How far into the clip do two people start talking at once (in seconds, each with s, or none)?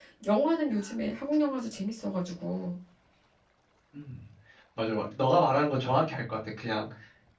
none